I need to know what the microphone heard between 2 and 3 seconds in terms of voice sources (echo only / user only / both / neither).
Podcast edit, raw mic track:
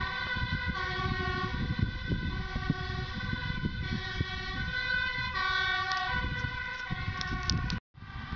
neither